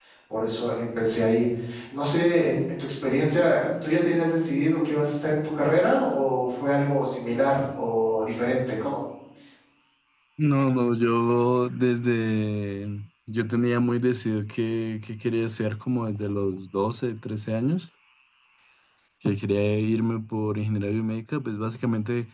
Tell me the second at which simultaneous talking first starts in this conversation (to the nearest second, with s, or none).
none